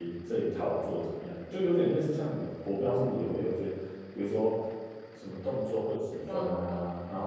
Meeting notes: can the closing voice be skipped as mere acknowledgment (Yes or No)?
Yes